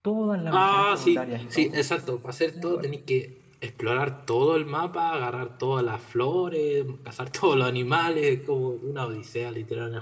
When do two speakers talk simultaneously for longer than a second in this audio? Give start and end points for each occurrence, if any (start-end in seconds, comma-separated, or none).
0.5-1.8